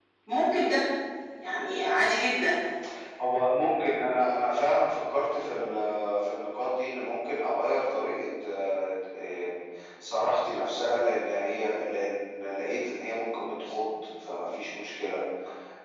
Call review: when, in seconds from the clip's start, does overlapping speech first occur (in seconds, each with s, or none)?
none